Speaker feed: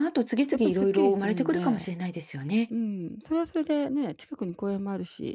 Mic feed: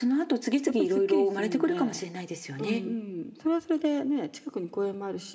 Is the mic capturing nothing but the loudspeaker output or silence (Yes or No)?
No